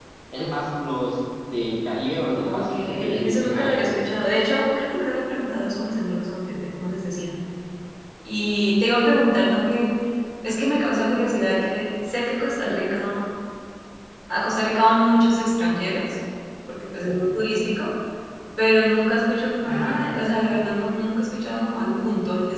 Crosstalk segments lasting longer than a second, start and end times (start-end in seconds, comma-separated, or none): 2.5-4.2